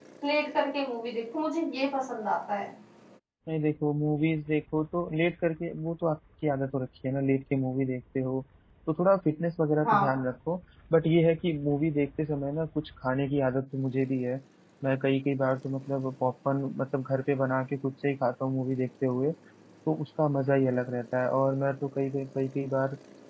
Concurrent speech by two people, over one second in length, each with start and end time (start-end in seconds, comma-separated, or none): none